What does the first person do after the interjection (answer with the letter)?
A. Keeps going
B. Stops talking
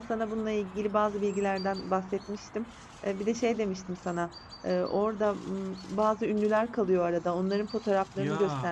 A